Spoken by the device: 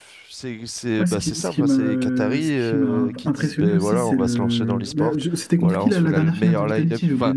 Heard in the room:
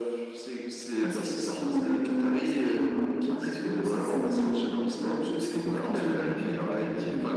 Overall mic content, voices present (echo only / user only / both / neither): echo only